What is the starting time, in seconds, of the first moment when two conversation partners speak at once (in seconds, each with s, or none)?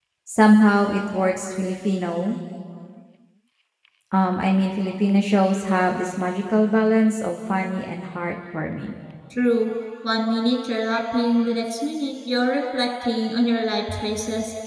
none